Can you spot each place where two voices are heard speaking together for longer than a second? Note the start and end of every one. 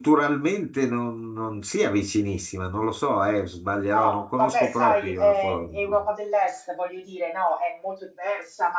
3.9-6.0

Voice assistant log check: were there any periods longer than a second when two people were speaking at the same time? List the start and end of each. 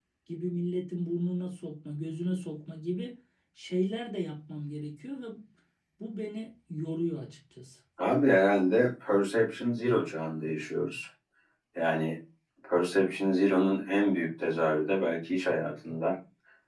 none

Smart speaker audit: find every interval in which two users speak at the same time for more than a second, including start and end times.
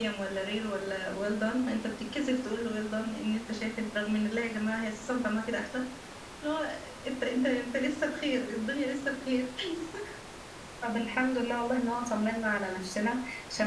none

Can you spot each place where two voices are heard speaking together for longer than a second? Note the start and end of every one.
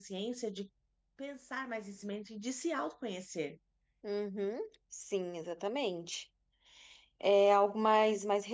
none

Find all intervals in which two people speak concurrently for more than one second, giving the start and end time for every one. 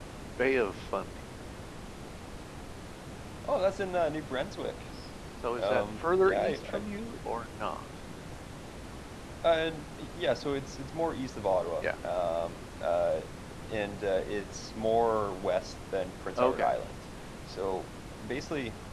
5.6-6.8

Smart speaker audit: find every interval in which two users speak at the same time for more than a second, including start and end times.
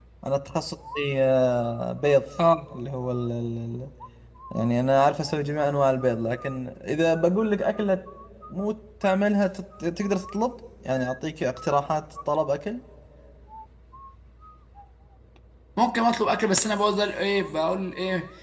none

